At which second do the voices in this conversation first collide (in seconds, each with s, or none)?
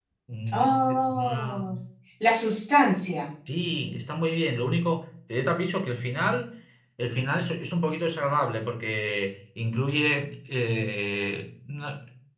0.5 s